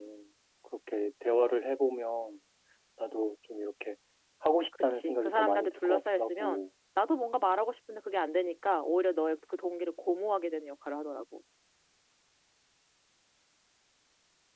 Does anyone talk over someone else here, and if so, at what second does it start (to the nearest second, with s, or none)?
5 s